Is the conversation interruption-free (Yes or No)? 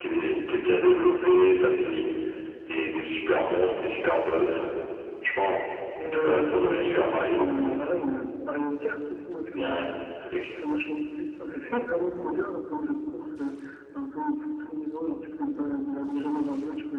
No